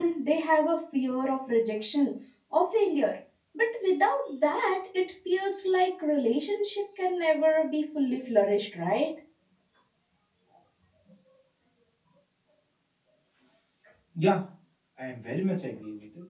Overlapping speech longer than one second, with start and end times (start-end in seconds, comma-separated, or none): none